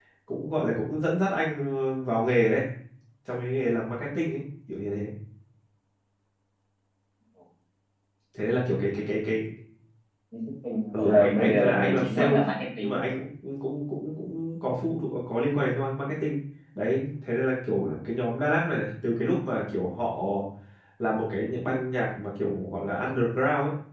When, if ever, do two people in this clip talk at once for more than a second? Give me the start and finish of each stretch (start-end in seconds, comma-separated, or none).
10.9-12.3